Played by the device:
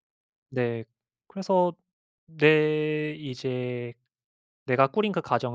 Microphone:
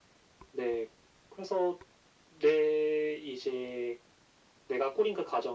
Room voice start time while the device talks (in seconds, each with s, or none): none